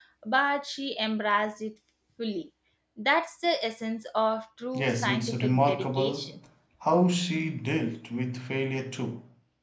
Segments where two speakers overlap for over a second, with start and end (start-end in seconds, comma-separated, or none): 4.7-6.3